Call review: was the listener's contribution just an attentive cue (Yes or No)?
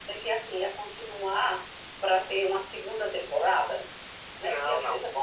Yes